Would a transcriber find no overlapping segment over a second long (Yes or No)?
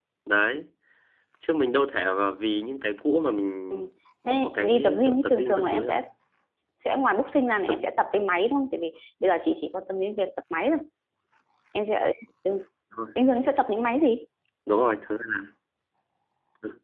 No